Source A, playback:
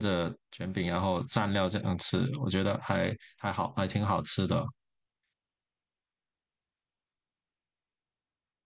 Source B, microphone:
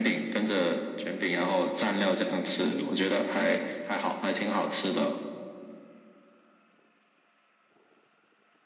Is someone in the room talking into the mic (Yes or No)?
No